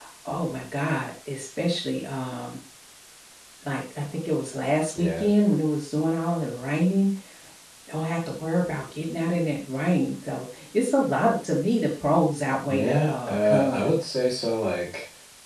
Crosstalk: present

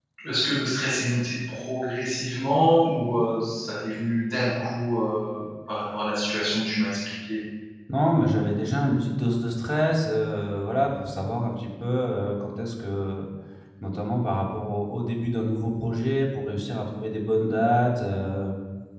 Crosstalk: none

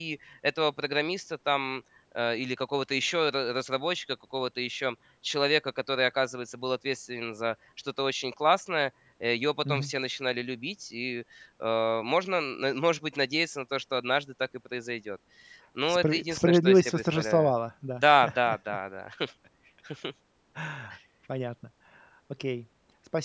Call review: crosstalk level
present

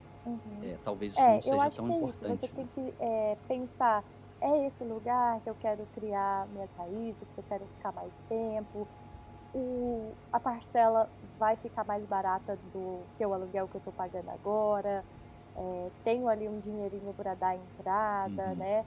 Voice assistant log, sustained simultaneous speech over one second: present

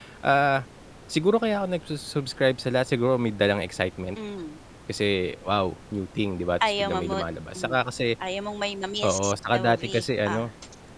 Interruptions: present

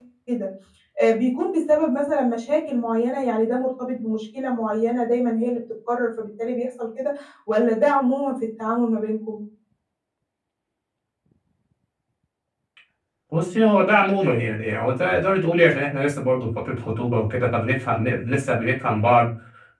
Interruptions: none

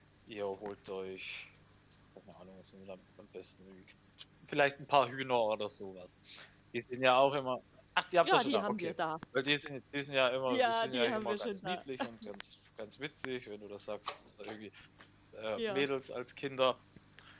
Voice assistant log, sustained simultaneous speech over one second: present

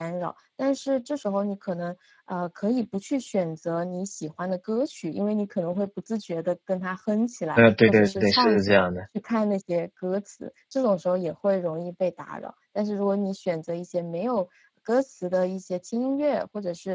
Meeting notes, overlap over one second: present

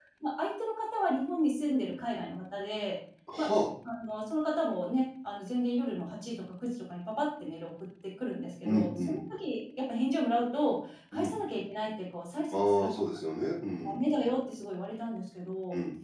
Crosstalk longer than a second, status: none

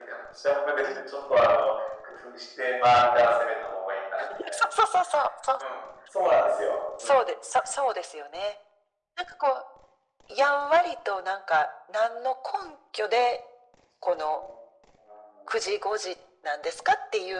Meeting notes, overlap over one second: none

